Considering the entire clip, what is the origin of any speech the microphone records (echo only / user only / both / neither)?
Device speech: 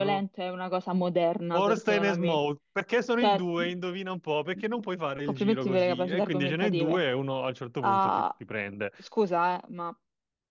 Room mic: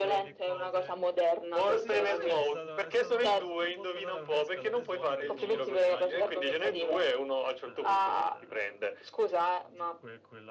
both